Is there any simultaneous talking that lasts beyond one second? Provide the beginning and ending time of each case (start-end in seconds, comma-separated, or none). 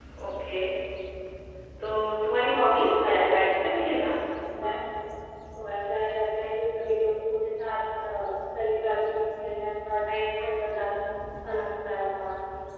2.5-4.1